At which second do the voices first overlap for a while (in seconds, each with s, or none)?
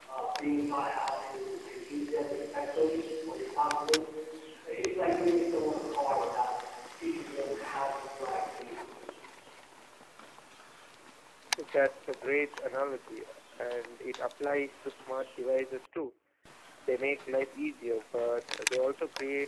none